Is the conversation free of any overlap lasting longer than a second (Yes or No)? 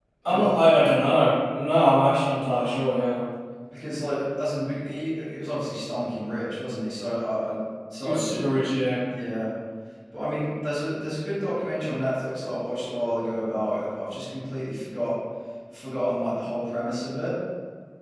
Yes